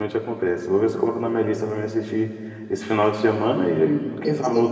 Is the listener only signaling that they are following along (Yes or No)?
No